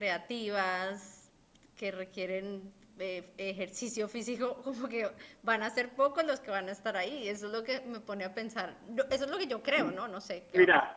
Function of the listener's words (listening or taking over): taking over